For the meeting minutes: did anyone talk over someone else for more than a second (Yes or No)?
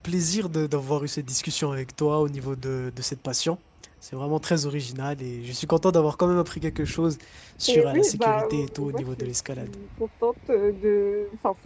Yes